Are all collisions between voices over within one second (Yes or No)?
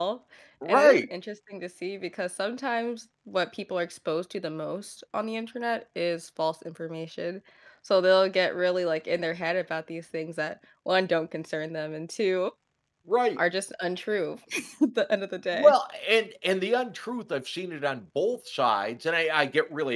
Yes